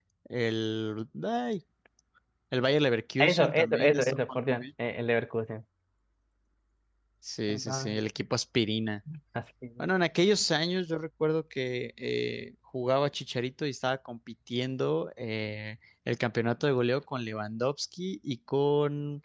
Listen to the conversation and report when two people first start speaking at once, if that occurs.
3.2 s

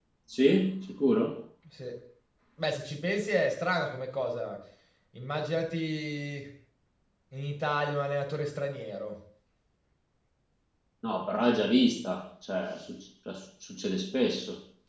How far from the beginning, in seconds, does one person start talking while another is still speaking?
none

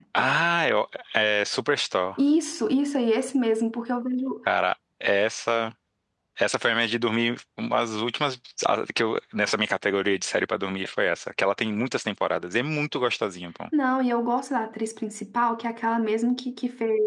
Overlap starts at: none

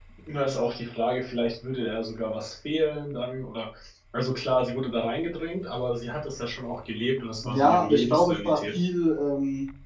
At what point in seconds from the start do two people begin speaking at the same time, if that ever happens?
7.4 s

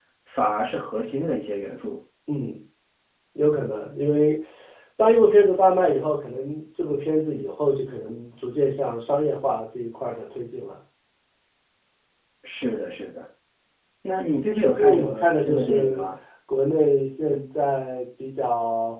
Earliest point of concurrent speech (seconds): 14.6 s

